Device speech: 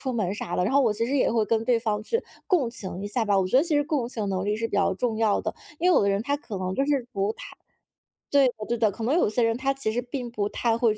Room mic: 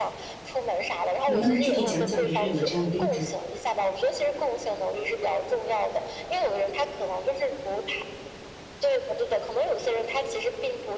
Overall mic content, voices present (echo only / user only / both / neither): both